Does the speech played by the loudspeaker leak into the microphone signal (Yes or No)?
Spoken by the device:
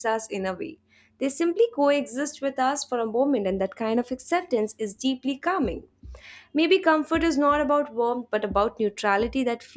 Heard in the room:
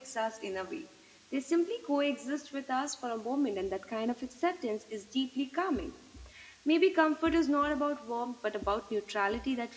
Yes